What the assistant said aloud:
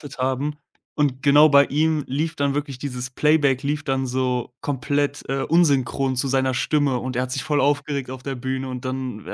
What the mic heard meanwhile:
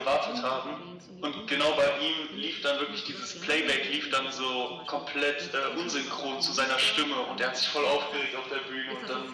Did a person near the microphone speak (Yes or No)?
Yes